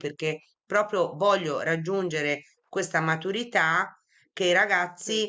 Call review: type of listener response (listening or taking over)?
listening